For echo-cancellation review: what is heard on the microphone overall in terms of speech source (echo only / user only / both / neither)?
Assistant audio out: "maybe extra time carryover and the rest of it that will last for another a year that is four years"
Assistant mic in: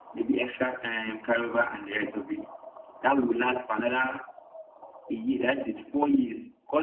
echo only